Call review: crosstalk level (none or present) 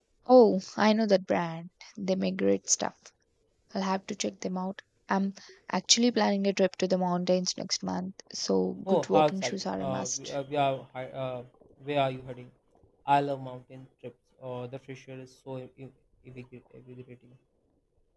present